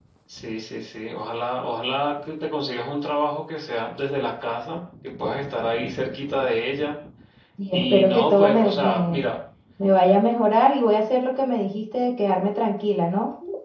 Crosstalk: present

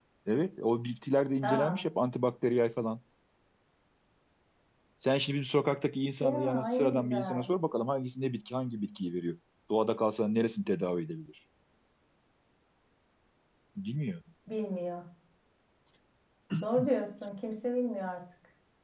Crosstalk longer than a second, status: present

